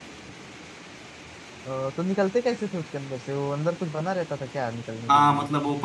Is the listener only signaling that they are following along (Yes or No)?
No